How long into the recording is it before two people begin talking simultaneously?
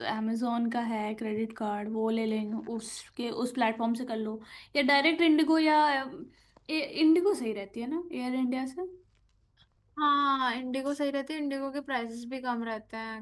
none

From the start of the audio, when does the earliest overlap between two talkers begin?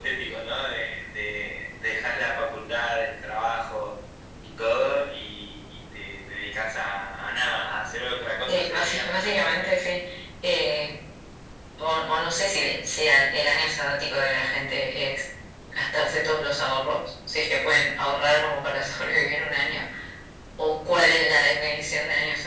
8.5 s

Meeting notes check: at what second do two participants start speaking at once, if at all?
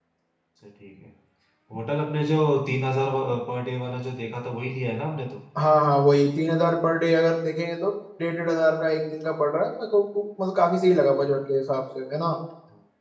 none

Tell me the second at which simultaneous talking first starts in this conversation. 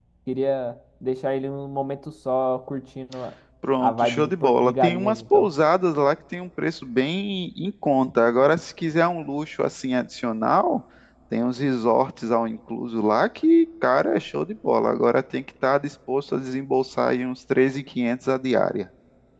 3.8 s

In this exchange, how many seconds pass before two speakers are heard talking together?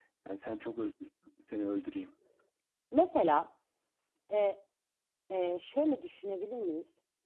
none

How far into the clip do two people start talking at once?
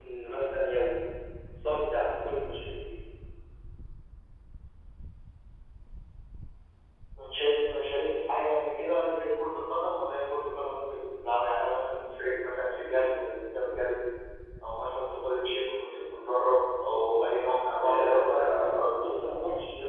17.8 s

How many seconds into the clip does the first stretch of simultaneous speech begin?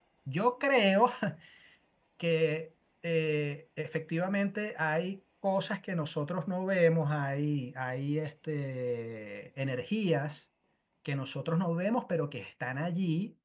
none

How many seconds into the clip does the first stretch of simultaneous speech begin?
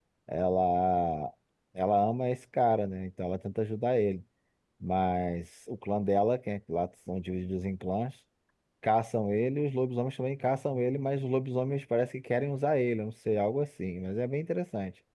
none

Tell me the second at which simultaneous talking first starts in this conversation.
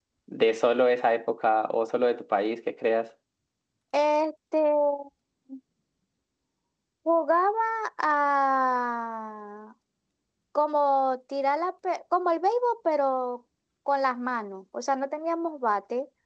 none

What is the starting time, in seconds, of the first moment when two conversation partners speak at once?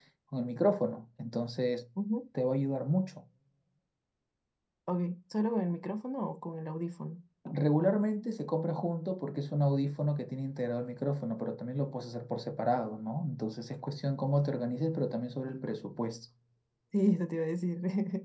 none

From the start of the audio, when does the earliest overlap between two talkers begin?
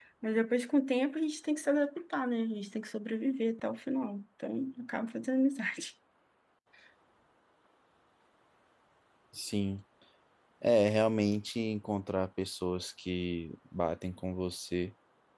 none

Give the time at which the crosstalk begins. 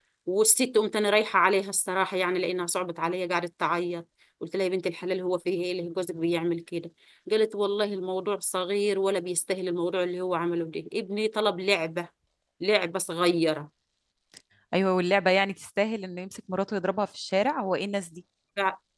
none

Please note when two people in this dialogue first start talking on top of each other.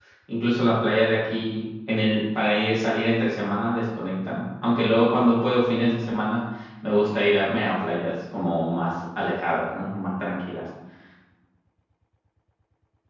none

